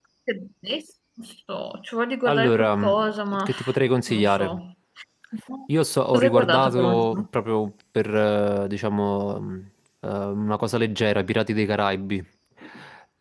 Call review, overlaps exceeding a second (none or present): present